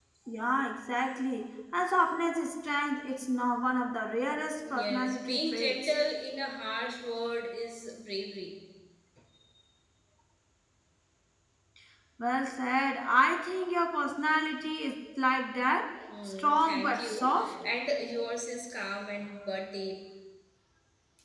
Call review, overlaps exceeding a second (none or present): present